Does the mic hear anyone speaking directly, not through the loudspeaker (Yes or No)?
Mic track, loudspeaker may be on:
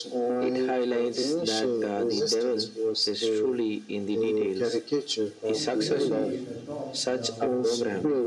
Yes